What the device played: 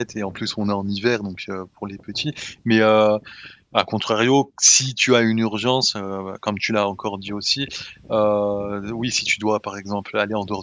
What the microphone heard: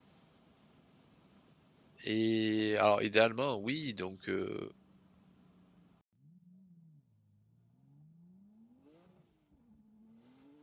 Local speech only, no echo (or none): et alors idéalement oui, donc heu